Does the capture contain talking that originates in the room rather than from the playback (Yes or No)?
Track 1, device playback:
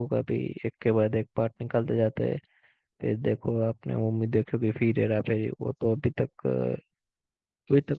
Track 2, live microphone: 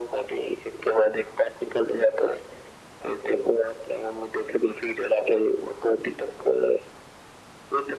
No